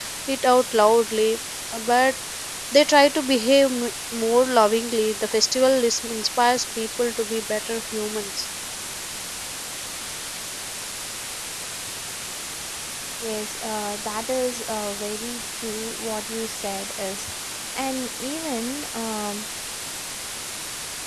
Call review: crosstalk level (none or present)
none